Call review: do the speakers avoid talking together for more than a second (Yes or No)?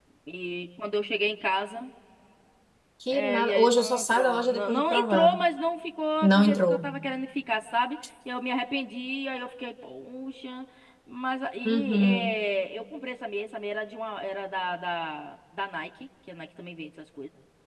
No